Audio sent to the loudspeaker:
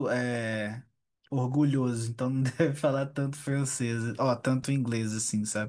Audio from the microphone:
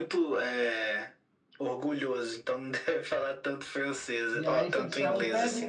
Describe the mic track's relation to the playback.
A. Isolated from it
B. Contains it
B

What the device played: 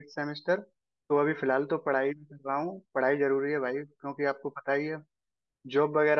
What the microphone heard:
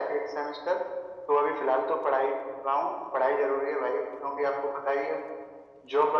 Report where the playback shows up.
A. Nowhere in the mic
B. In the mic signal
B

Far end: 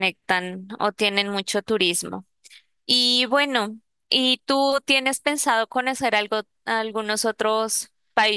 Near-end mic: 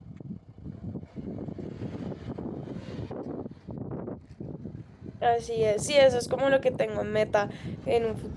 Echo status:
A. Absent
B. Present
A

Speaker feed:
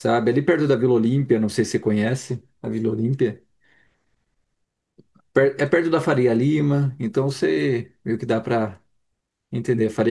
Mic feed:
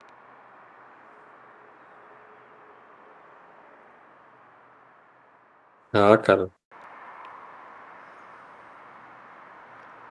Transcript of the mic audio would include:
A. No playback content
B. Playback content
A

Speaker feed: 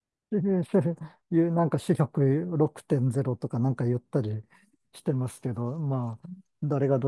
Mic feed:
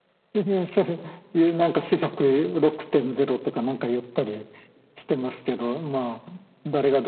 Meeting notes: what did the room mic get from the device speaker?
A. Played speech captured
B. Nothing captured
A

